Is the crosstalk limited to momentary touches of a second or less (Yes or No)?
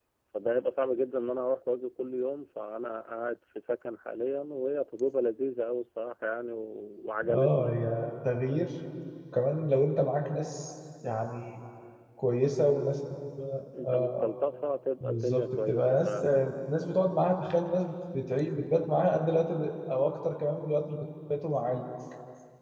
No